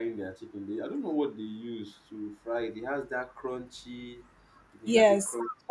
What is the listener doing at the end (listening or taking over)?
taking over